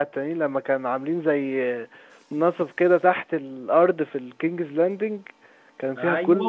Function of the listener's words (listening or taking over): taking over